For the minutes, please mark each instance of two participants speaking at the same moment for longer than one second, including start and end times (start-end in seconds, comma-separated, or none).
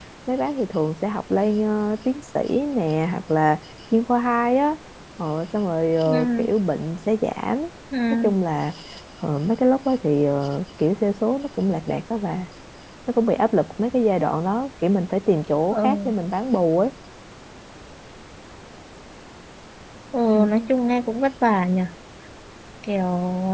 none